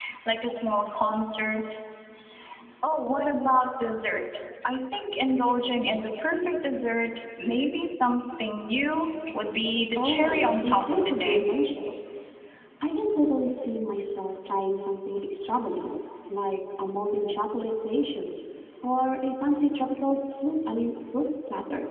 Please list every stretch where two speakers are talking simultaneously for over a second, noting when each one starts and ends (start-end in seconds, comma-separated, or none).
10.0-11.4